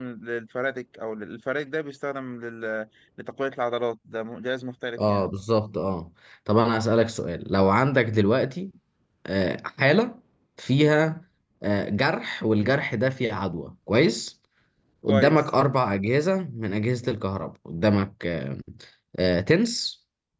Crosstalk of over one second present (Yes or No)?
No